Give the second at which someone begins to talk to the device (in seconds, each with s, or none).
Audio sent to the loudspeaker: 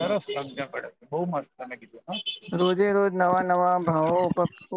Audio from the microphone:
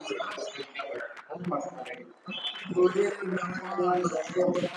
3.6 s